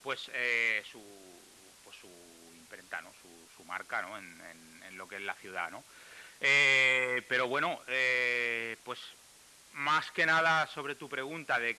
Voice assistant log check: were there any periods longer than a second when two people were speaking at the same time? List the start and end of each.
none

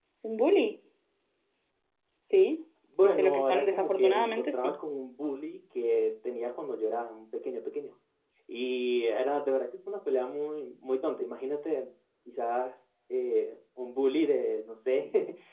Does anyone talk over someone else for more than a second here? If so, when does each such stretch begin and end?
3.0-4.7

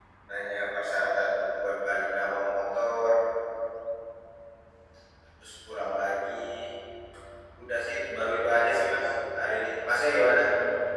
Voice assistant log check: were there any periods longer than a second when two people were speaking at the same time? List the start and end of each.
none

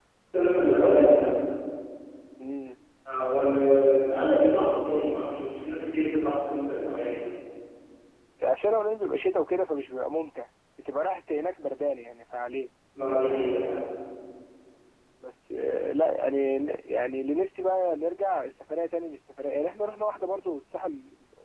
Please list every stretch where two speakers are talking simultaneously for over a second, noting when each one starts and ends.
none

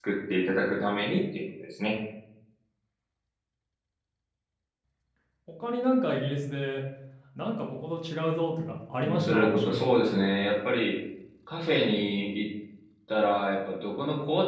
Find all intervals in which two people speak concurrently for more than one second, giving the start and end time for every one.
9.0-10.3

